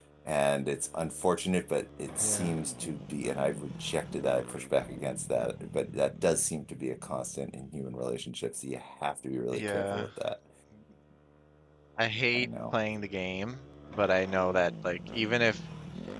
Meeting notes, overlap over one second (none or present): none